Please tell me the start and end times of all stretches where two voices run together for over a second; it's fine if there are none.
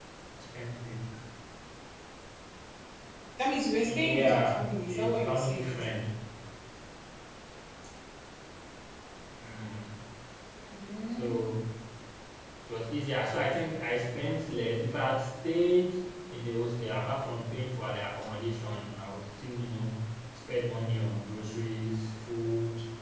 3.8-5.7

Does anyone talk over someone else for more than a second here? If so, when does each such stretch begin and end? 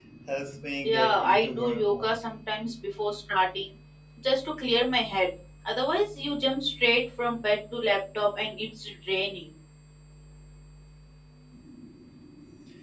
0.8-2.1

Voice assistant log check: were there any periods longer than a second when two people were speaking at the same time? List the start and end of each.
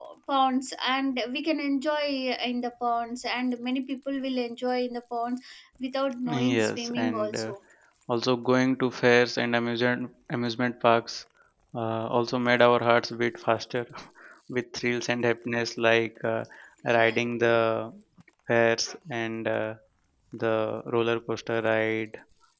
6.3-7.5

